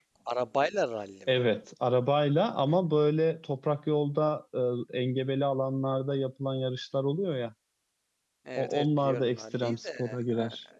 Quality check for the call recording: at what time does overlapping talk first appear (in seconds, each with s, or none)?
8.6 s